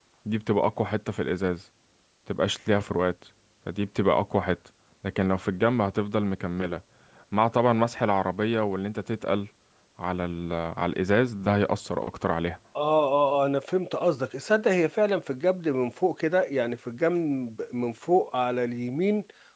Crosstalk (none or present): none